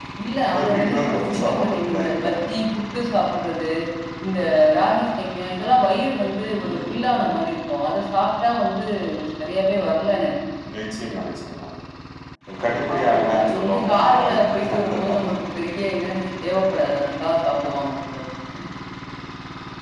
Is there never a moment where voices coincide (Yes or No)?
No